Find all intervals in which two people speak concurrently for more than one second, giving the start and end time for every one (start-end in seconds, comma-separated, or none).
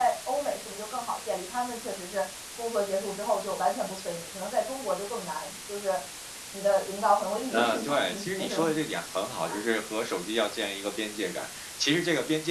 7.5-8.7